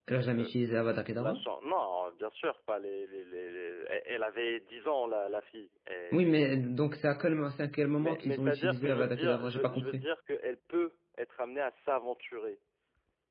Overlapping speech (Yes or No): Yes